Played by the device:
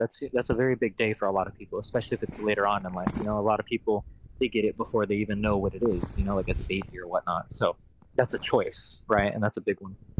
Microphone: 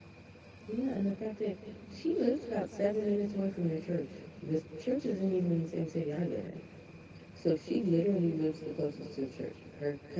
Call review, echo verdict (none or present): none